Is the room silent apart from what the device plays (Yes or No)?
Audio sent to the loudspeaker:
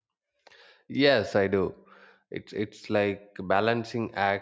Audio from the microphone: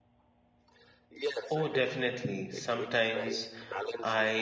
No